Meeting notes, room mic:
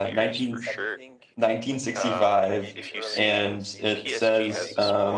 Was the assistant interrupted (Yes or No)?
Yes